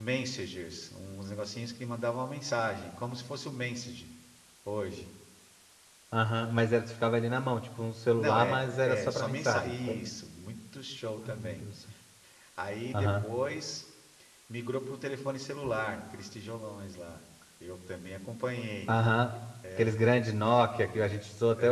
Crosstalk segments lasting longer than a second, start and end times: 8.2-9.7

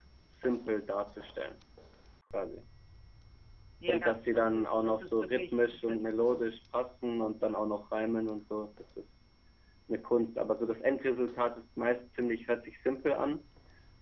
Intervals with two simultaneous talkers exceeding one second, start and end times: 3.9-6.4

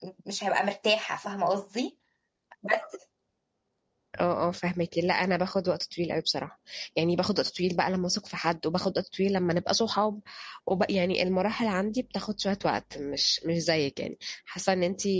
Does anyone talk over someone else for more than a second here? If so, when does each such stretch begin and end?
none

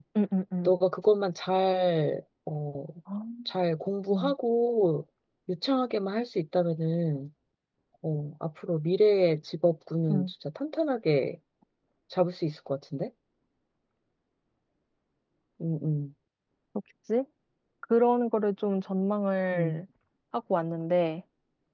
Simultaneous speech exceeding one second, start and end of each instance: none

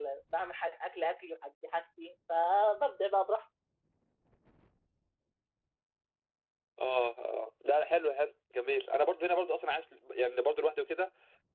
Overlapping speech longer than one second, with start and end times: none

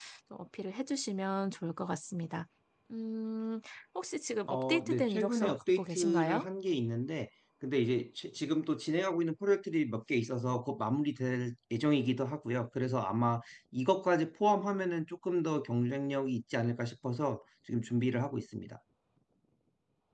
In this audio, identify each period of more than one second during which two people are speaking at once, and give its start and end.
4.5-6.5

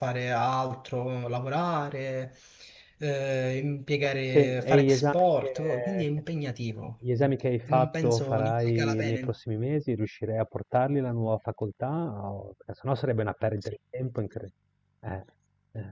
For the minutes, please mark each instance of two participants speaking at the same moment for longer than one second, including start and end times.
4.3-6.0, 7.7-9.3

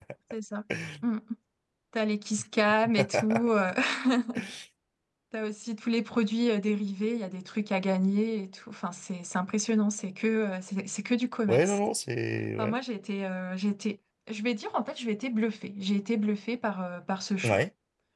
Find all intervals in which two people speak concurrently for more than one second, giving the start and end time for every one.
none

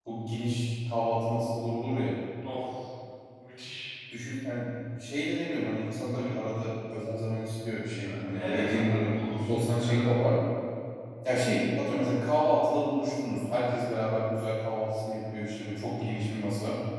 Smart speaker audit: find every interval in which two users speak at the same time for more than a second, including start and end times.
8.1-10.2

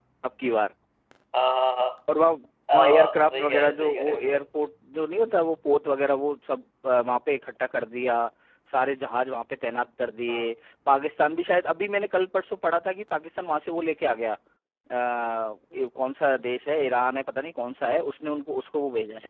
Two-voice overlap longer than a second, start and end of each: 2.7-4.4

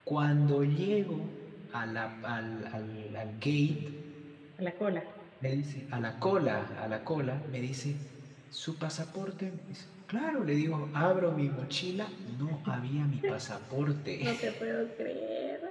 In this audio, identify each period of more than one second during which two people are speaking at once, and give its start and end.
none

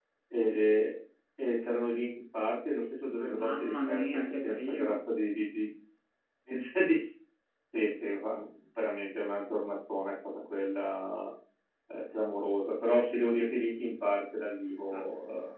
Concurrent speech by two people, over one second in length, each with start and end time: 3.3-5.0

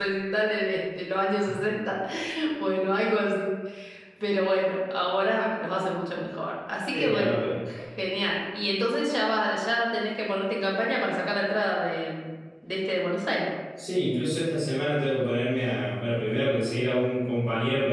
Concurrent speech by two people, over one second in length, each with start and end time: none

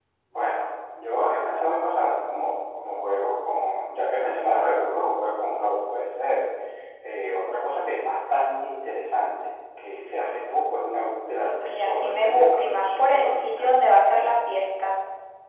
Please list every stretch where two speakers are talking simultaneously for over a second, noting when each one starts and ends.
11.6-13.7

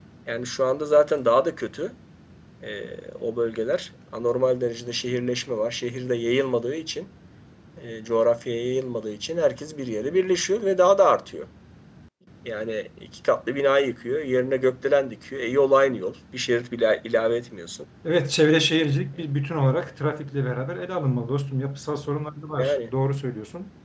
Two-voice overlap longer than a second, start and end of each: none

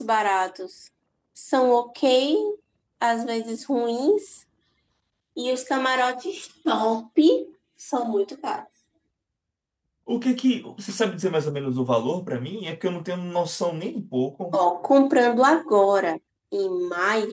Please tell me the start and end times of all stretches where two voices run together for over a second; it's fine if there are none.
none

